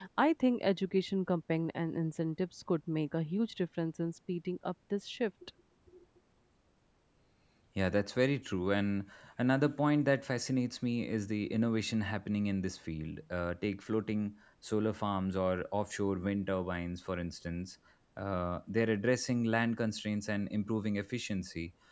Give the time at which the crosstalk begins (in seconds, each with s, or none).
none